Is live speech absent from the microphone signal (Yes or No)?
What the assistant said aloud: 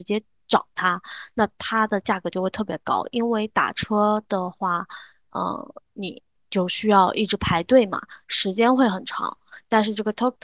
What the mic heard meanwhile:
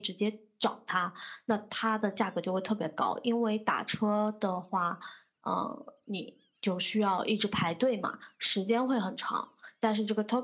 Yes